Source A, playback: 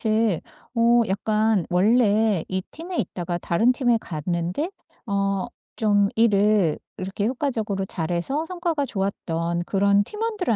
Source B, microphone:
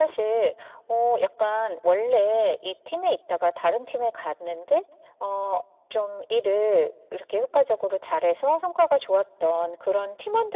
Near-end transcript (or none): none